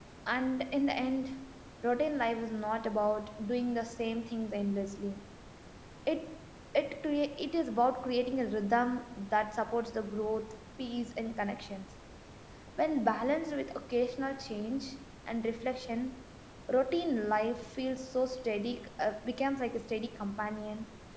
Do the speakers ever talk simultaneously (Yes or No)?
No